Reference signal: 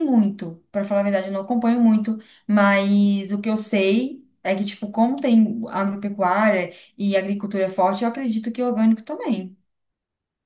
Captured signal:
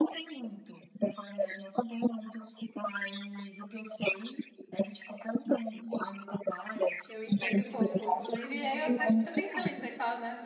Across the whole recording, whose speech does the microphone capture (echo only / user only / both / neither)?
both